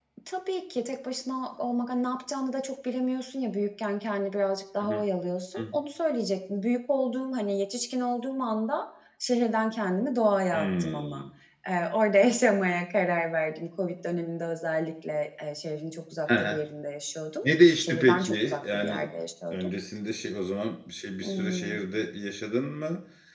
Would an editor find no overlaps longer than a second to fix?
No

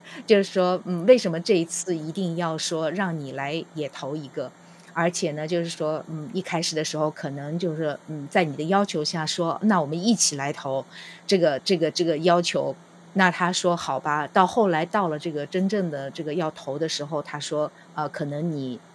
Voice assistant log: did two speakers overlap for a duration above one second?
No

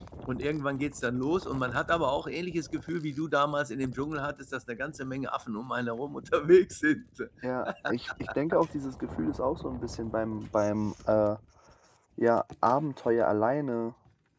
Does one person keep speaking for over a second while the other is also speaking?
No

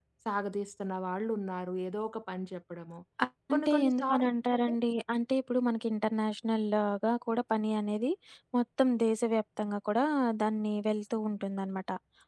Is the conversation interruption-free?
No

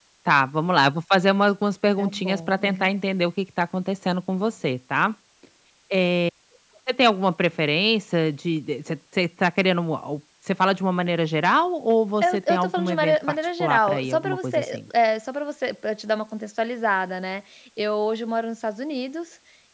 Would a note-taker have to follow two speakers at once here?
Yes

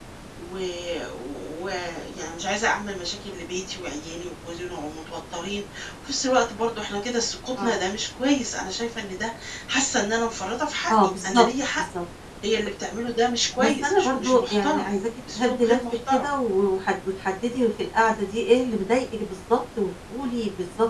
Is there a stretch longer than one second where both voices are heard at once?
Yes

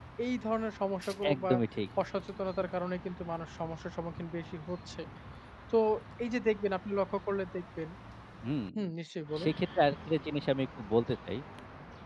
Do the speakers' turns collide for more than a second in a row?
No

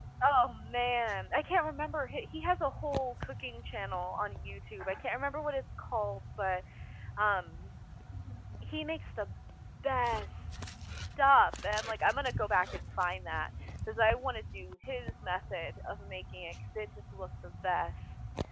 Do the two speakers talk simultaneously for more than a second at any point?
No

